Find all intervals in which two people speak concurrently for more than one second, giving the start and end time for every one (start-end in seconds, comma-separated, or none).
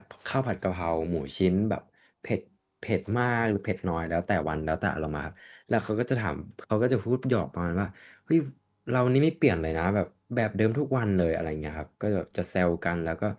none